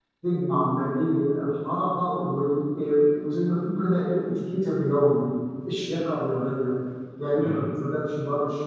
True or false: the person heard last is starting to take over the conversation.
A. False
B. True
A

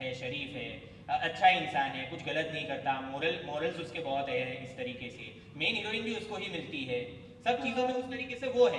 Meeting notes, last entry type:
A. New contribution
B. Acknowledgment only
B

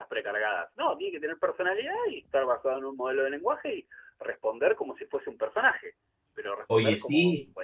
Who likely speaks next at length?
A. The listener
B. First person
B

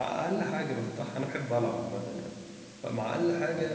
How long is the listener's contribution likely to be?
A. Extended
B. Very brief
B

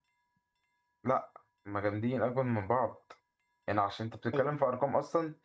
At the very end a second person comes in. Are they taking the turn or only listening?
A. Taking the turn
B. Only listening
B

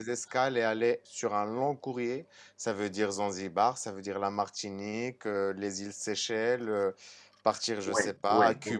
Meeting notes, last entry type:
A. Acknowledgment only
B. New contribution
B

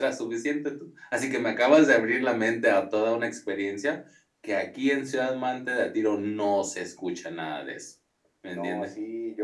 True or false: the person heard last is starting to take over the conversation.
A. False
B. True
B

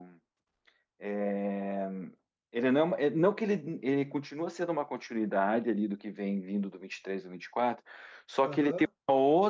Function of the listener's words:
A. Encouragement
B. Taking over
A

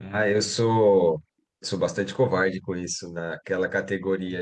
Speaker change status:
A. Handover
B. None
B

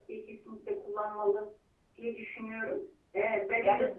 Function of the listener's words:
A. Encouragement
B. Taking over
A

